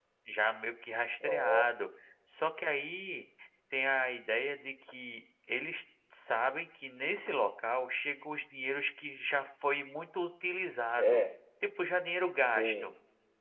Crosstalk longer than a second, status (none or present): none